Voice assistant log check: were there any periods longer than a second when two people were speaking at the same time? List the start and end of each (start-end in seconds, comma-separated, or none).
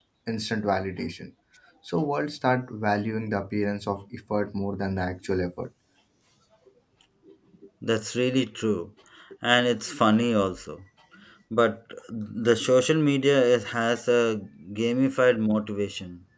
none